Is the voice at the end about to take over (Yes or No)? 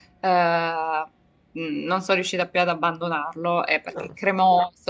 No